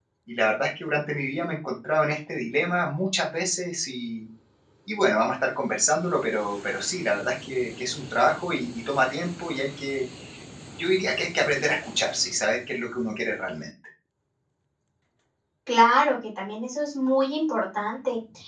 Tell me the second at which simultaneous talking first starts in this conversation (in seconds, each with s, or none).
none